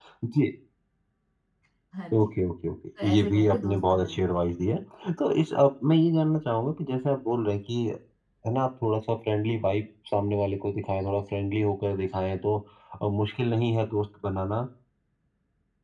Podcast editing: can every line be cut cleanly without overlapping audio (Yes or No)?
No